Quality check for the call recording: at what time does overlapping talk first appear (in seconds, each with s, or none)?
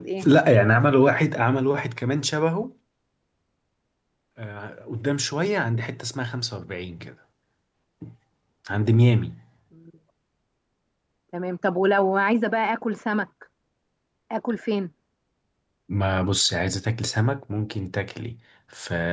none